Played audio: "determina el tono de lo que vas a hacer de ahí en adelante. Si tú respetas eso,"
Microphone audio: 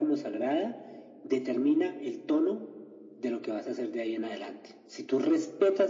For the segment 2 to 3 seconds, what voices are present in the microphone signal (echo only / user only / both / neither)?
echo only